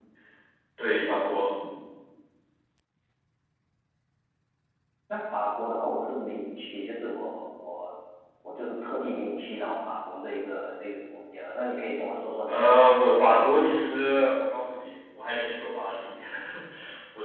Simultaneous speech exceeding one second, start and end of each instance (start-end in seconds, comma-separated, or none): 12.5-13.8